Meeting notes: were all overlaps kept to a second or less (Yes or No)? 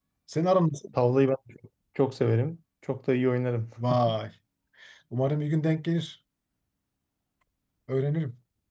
Yes